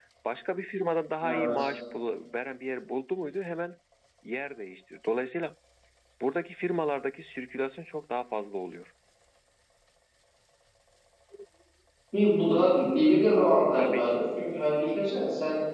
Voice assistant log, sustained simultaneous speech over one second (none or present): none